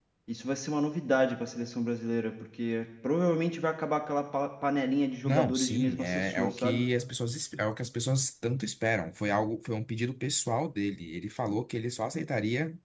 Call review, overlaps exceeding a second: present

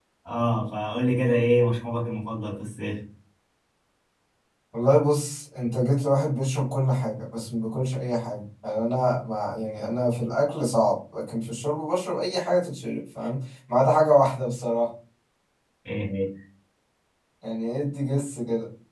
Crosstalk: none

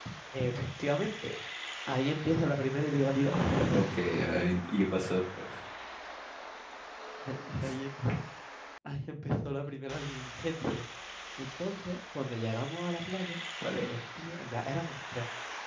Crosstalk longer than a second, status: none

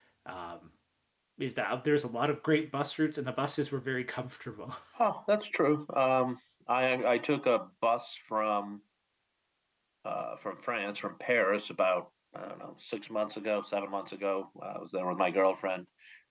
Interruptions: none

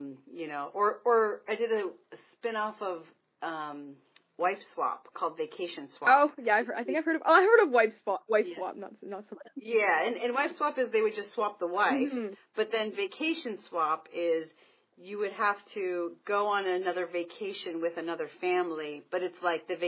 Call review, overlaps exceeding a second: none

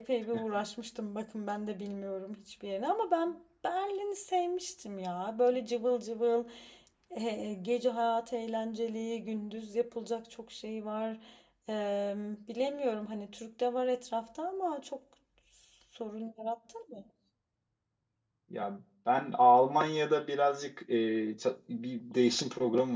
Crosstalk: none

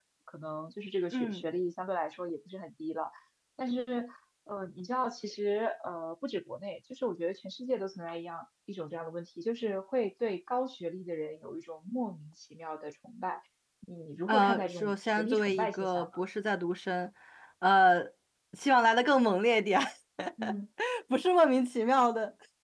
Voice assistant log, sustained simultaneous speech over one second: present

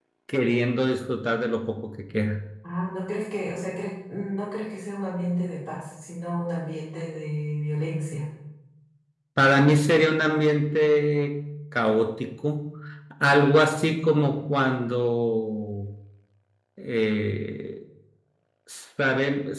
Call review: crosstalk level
none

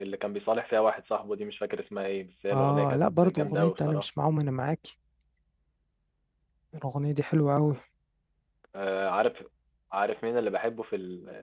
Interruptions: present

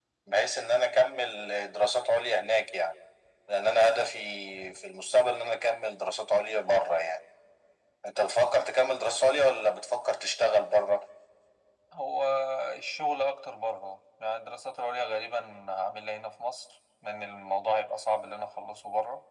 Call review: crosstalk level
none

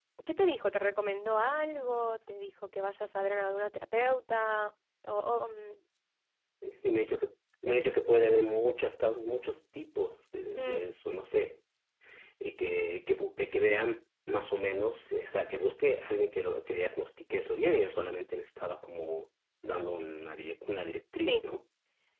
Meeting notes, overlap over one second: none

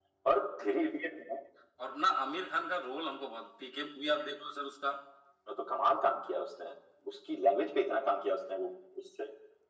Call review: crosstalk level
none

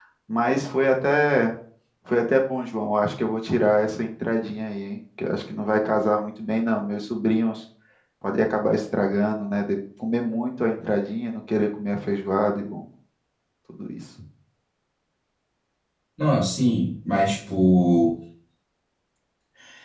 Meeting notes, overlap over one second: none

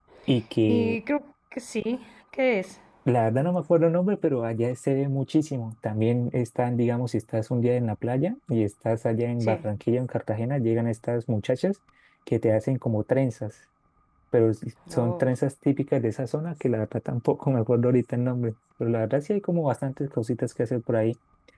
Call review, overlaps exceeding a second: none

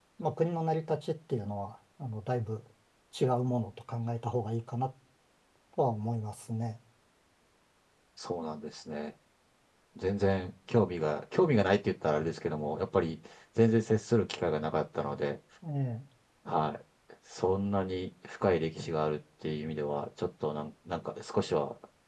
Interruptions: none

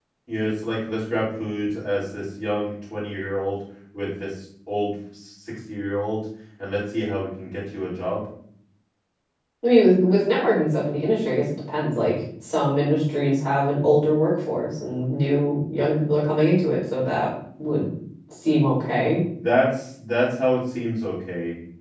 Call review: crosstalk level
none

